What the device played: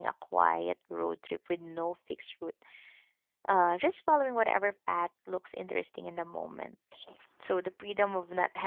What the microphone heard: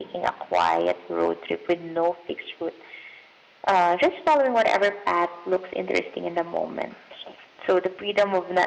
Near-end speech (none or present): none